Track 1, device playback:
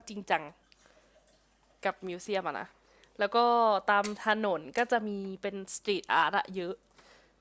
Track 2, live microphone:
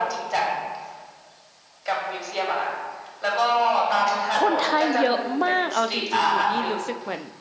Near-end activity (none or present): present